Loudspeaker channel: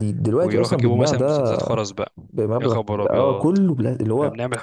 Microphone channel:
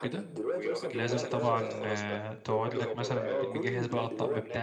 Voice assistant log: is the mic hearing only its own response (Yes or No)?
No